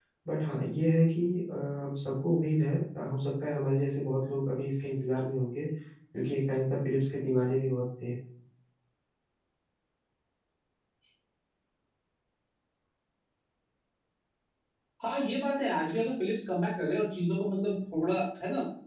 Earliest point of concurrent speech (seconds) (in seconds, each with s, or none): none